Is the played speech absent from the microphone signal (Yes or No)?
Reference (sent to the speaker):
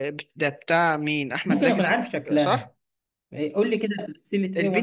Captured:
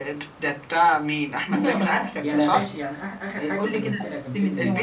No